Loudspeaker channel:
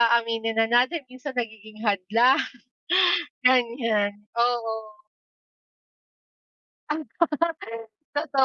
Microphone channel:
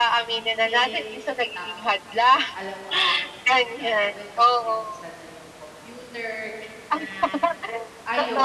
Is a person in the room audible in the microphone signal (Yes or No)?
Yes